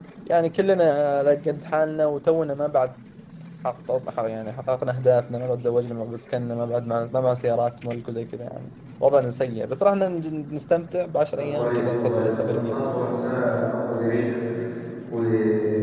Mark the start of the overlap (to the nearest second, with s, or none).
11 s